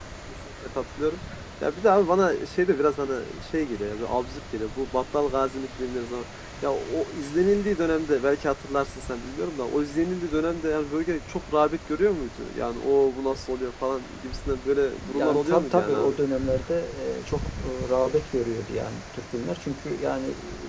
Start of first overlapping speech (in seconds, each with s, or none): 15.0 s